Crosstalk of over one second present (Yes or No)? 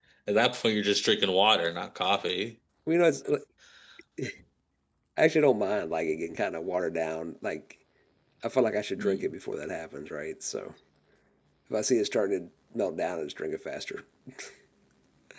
No